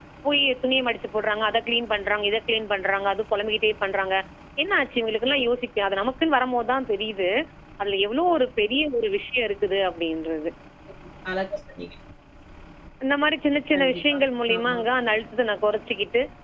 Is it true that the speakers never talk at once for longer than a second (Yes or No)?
Yes